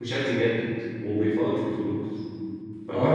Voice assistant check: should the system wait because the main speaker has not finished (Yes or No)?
No